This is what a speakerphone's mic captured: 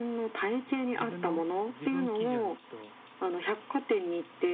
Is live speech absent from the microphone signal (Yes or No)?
No